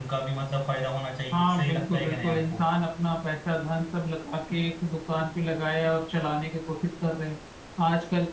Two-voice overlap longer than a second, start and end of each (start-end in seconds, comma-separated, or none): 1.3-2.7